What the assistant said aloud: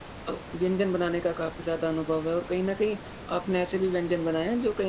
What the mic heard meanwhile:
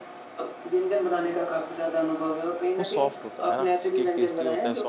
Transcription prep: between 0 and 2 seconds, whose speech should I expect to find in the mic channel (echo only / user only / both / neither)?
echo only